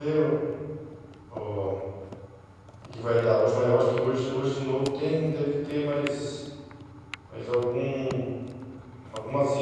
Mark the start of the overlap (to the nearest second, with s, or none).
none